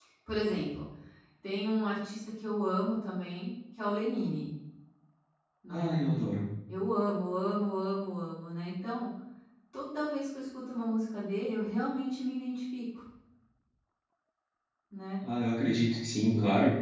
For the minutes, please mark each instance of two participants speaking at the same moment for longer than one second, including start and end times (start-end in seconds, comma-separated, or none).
none